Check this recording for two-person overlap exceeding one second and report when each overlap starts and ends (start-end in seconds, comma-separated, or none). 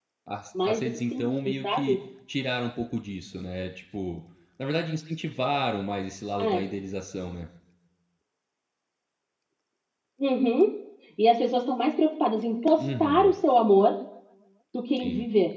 0.6-2.0